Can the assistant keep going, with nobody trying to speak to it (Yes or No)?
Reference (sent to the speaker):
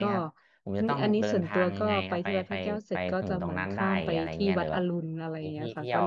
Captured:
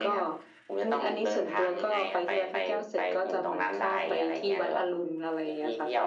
Yes